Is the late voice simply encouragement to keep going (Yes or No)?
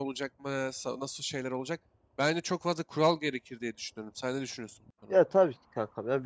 No